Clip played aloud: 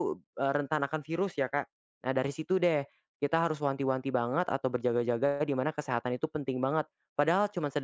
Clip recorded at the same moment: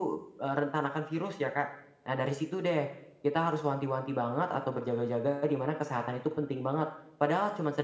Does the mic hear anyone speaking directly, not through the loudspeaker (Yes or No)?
No